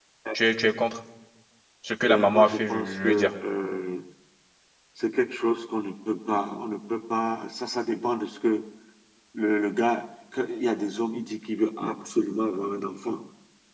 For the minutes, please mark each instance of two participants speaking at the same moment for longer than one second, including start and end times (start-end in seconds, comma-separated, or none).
2.1-3.3